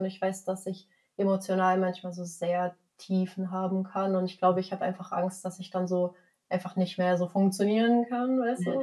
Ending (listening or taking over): taking over